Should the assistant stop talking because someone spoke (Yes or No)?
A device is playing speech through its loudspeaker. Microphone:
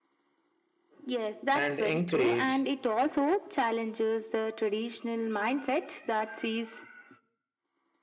Yes